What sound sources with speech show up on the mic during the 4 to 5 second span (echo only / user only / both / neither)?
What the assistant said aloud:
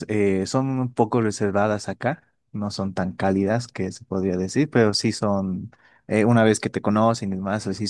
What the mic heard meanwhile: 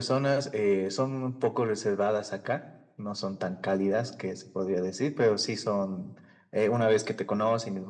echo only